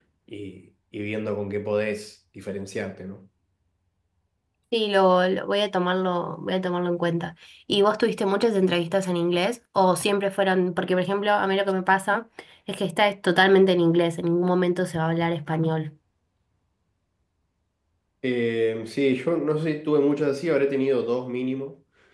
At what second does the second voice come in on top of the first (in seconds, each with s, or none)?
none